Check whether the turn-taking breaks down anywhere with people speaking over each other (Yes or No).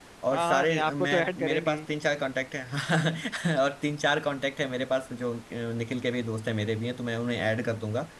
Yes